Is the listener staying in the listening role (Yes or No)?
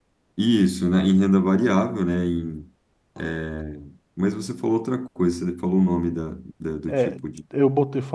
No